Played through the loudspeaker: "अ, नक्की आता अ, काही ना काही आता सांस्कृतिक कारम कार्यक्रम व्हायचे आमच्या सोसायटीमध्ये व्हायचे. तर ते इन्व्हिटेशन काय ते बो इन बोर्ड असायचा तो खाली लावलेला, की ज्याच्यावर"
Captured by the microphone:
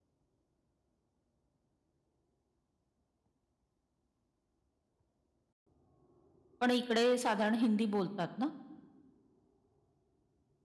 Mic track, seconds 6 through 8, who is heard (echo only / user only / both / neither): user only